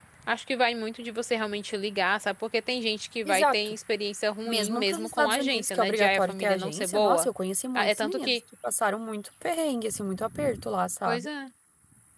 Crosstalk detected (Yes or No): Yes